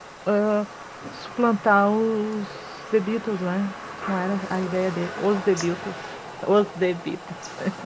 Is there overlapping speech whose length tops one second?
No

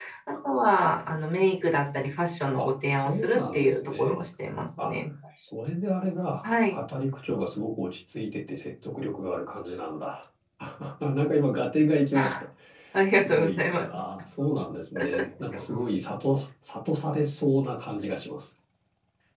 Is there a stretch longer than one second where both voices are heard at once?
Yes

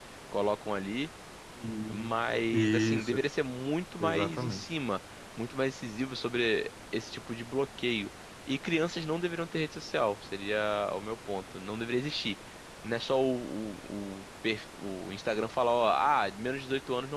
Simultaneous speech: Yes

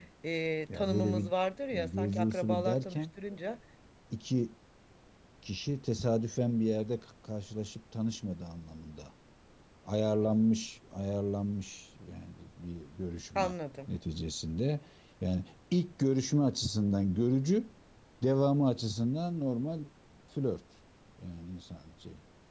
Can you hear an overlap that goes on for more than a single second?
Yes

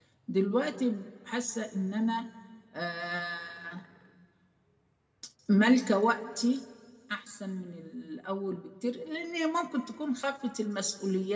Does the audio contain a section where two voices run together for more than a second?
No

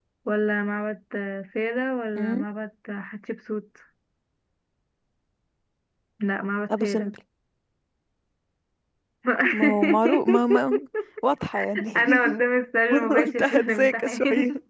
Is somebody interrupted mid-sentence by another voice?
Yes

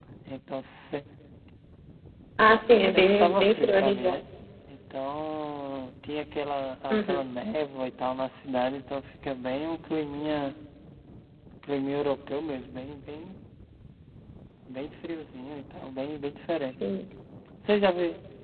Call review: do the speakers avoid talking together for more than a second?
No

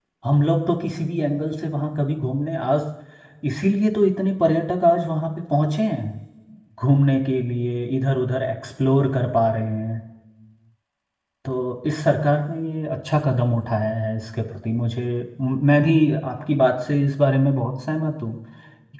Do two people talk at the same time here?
No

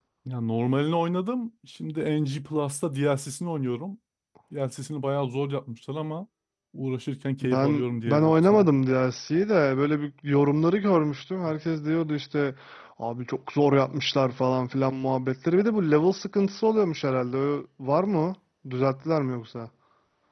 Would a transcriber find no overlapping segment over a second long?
No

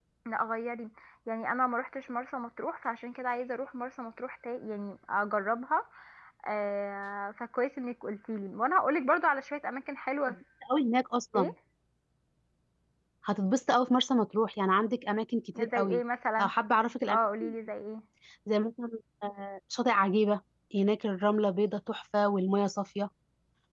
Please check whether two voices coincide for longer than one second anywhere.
No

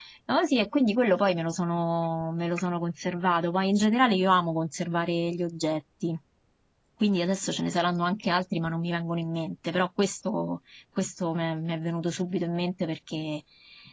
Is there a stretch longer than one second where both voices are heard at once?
No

